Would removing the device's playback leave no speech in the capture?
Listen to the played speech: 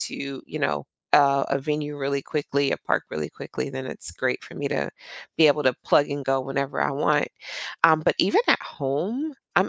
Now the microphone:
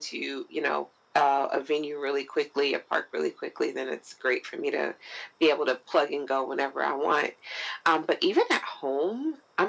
Yes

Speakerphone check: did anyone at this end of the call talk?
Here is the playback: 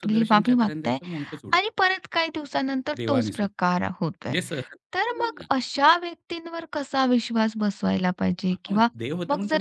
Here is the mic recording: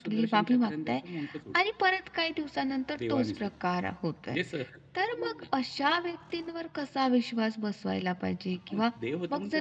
No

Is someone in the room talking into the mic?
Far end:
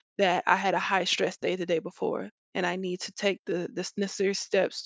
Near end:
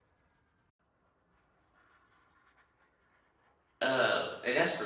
Yes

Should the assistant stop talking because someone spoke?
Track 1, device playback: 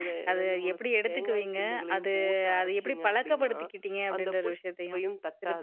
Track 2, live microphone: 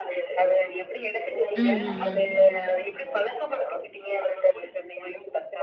Yes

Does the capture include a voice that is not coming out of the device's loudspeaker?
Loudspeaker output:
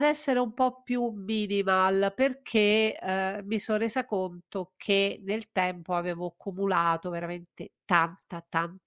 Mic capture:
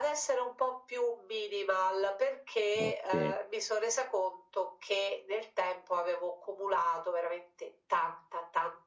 Yes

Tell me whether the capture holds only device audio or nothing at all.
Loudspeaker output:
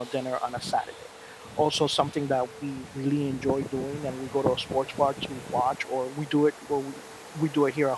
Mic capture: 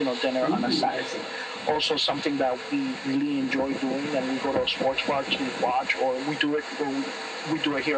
No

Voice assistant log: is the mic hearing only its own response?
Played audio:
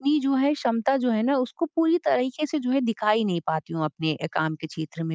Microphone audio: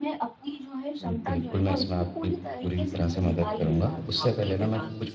No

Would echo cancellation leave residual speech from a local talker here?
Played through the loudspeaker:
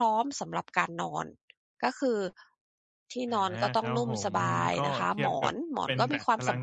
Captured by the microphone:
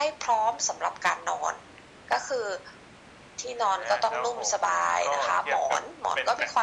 No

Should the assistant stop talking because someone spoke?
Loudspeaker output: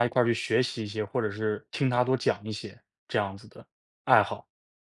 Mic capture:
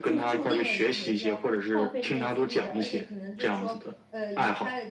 Yes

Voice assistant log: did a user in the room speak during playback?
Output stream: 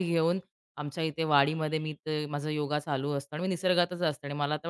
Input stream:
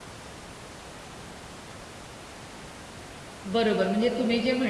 Yes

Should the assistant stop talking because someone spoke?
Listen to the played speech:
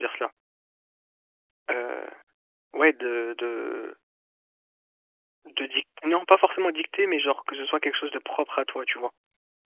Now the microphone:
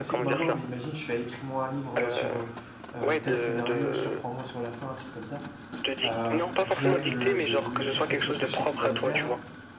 Yes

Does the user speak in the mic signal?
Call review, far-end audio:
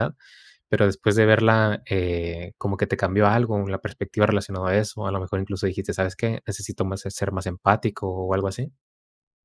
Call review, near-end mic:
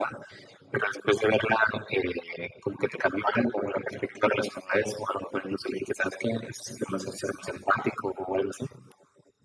No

